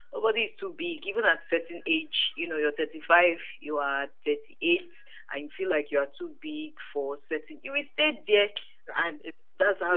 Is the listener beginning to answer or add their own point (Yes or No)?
Yes